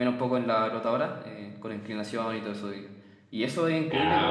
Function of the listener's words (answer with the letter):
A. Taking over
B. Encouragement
B